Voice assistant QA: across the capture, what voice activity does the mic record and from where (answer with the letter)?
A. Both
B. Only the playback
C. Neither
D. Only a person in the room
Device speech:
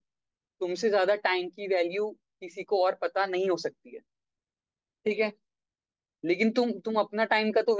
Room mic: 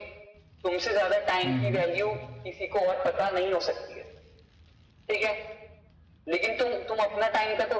A